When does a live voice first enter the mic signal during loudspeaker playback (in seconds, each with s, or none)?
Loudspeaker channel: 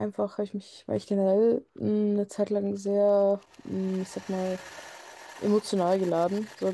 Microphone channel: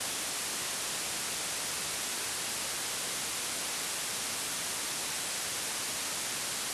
none